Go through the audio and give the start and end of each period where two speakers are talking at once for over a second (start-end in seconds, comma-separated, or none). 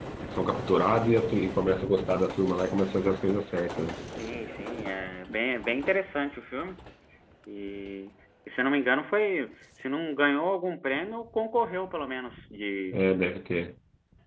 none